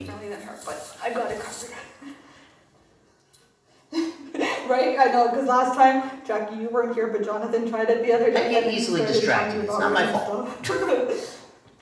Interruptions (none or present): present